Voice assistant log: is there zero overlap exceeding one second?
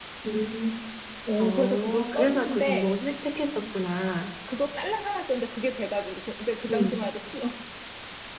No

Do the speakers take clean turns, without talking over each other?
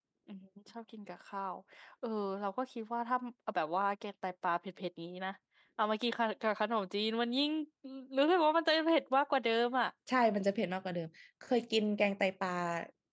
Yes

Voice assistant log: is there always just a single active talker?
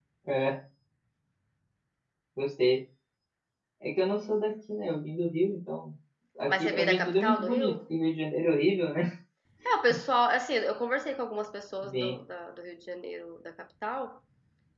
No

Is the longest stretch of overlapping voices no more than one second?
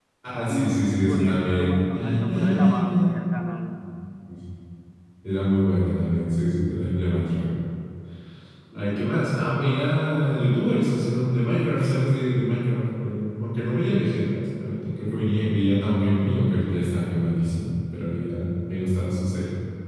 No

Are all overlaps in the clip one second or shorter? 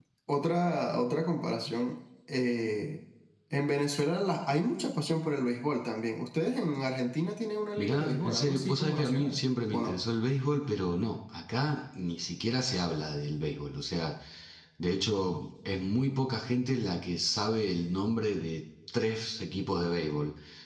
No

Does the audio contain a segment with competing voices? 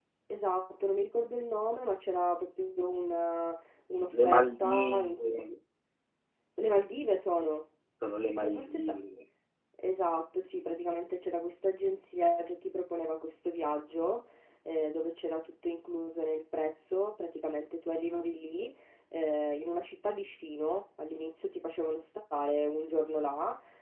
Yes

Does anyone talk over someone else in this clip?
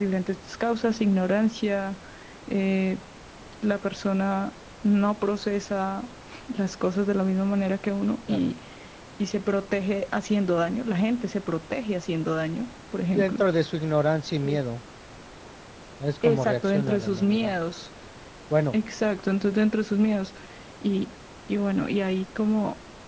Yes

